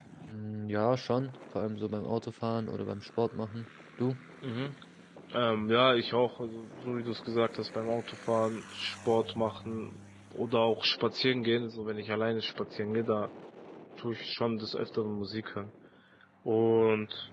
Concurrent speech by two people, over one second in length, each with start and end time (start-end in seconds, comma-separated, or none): none